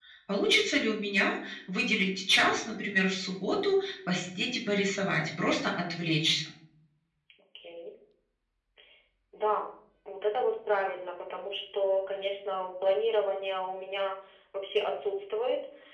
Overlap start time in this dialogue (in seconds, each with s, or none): none